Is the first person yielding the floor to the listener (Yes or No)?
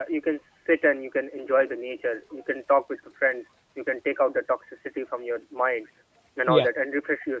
No